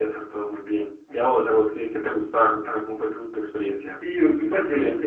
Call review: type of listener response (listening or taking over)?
taking over